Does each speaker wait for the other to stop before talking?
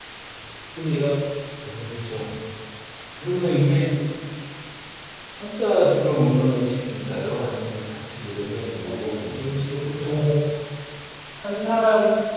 No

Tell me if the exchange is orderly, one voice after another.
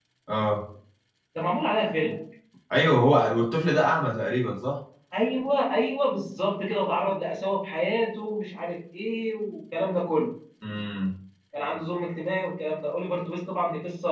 Yes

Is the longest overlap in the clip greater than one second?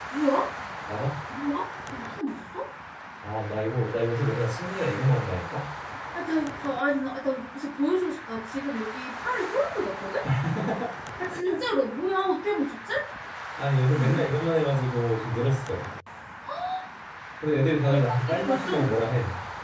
Yes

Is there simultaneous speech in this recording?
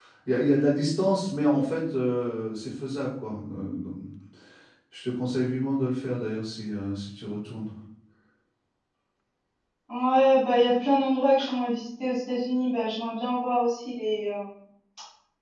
No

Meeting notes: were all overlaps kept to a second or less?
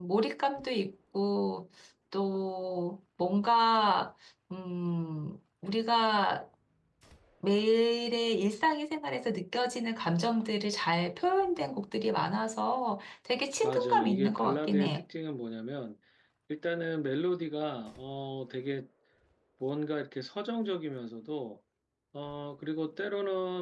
No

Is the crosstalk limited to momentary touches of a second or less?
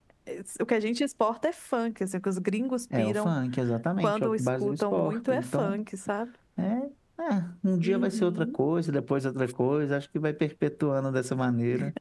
No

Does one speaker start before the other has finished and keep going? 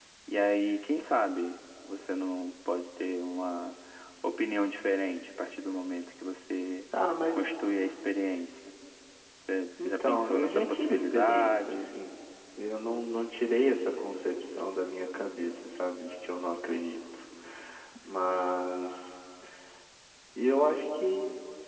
Yes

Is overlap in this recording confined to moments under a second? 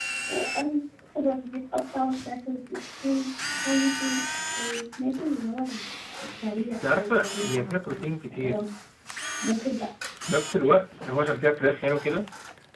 No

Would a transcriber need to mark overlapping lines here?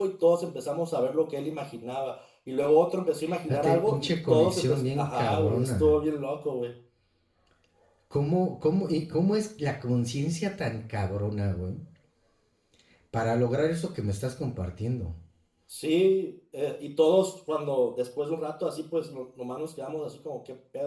Yes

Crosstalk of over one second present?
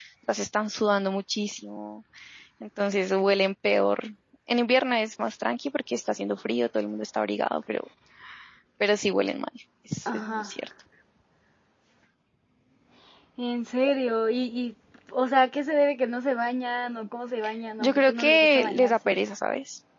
Yes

